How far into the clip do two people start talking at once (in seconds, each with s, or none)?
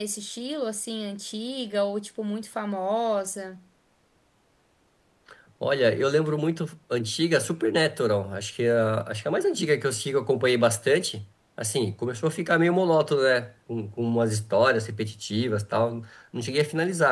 none